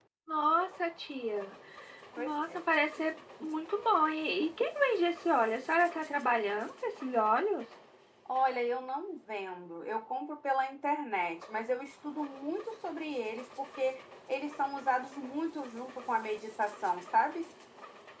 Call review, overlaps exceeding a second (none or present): none